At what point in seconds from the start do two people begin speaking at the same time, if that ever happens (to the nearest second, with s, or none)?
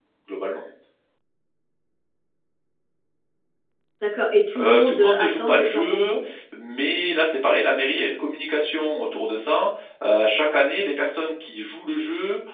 5 s